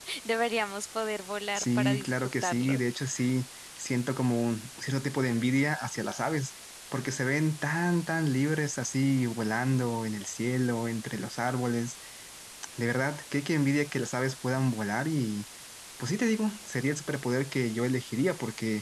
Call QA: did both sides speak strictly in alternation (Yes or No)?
No